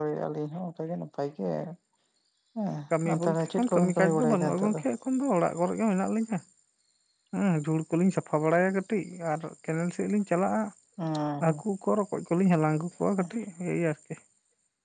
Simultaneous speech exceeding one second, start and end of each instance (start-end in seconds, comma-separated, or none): 3.0-4.8